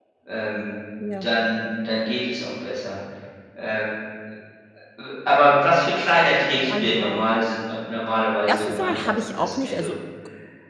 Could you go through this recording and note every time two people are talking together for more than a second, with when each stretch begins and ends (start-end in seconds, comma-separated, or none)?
8.5-9.9